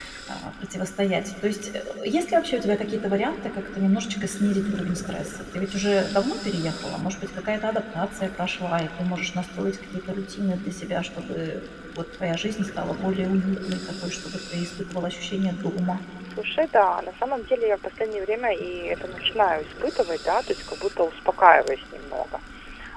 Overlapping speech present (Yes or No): No